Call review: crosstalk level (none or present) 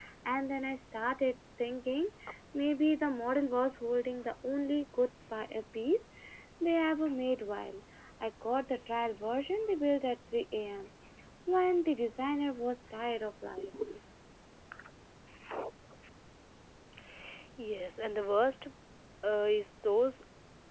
none